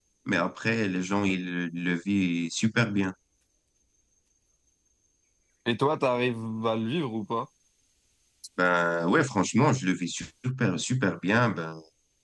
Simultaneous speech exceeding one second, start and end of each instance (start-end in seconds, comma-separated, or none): none